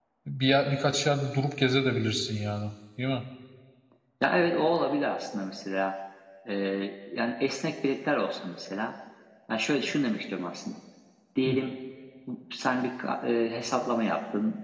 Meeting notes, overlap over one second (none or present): none